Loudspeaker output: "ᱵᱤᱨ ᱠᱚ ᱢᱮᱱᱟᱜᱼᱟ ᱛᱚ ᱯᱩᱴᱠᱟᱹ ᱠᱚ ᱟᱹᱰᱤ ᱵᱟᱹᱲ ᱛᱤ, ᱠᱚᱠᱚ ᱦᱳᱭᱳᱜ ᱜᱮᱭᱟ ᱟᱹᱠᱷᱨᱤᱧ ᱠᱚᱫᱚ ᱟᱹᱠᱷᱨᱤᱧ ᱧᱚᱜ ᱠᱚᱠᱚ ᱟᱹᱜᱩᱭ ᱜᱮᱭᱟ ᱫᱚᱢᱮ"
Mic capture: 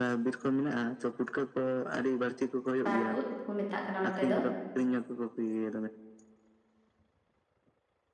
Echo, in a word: present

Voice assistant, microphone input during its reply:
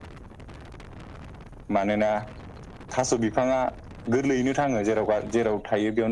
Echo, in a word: present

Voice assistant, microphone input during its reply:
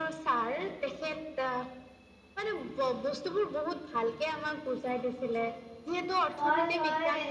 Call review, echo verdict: present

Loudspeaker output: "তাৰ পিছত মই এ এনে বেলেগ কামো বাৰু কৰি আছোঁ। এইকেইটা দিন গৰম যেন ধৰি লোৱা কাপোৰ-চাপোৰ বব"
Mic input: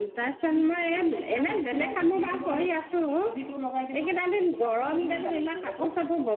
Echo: present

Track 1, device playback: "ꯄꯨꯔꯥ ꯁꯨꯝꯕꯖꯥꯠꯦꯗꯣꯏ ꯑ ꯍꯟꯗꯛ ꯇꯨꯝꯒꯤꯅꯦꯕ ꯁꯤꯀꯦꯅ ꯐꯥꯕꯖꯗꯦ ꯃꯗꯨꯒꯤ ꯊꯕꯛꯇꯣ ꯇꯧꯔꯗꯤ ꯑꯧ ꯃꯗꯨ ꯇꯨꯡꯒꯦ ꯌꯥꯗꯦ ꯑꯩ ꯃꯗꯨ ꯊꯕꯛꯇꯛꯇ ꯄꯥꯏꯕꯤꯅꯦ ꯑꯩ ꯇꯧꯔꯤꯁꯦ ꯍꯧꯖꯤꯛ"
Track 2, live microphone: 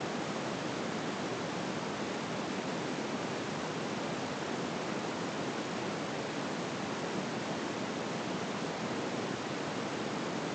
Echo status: none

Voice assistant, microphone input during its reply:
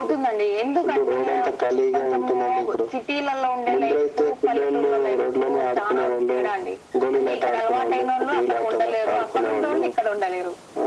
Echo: present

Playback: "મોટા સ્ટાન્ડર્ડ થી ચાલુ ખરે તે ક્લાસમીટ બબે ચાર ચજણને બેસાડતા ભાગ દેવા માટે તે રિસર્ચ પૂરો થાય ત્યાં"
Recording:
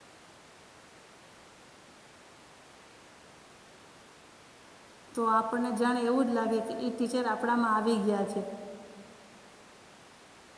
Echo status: none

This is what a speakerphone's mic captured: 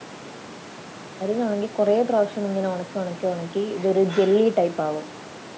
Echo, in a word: none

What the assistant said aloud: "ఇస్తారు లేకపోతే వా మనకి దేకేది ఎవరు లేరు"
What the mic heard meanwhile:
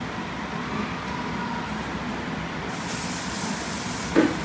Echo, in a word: none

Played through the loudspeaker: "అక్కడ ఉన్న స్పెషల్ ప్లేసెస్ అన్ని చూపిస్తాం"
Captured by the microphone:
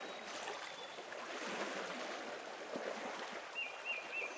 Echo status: none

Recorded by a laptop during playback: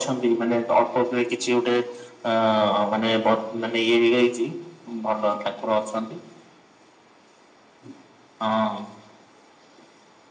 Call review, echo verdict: present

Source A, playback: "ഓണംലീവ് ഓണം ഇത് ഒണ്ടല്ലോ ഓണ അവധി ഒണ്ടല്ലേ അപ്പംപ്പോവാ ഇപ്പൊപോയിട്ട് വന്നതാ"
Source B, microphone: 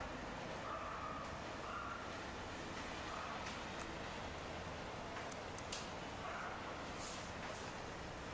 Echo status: none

